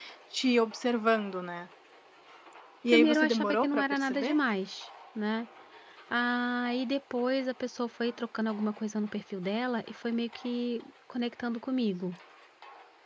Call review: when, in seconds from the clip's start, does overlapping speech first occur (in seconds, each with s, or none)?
2.9 s